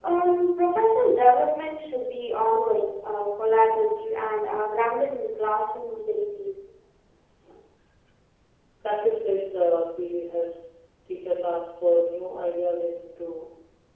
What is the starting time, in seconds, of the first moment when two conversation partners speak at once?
none

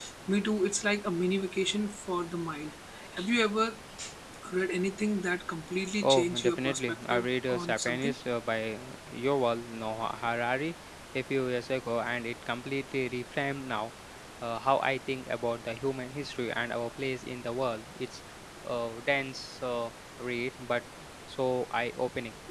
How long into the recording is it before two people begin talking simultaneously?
6.0 s

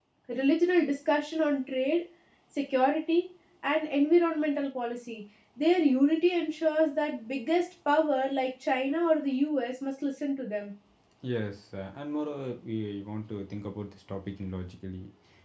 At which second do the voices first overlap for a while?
none

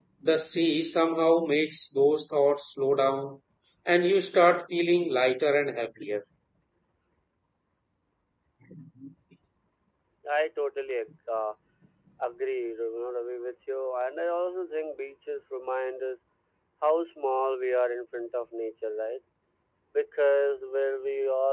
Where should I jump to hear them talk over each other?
none

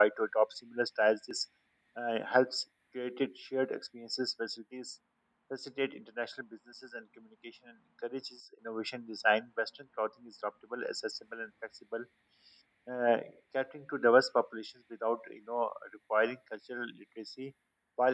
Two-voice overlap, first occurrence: none

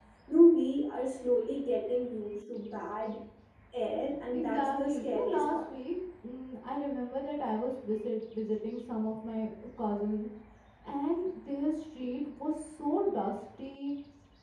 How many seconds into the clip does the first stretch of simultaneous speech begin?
4.3 s

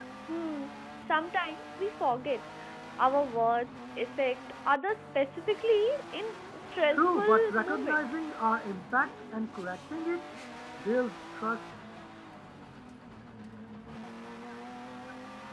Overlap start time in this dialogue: 6.9 s

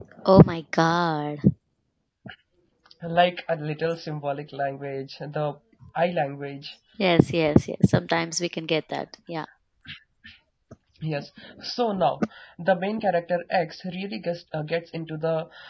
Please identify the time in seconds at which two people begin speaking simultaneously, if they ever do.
none

